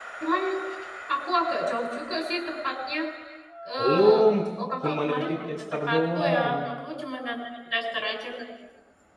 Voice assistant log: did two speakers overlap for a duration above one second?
Yes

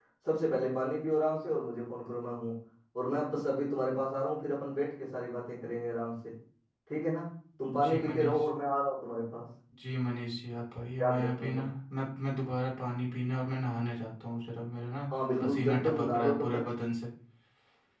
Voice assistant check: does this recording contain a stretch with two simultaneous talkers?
Yes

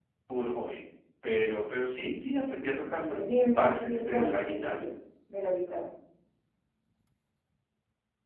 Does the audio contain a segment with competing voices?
Yes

